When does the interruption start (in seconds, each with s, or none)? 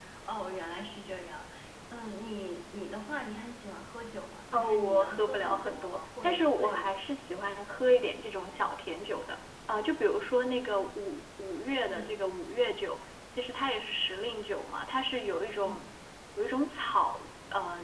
4.5 s